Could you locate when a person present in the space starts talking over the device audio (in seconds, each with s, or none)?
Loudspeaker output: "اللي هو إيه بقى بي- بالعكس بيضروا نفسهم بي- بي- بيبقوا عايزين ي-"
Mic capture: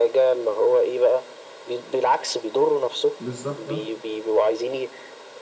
3.2 s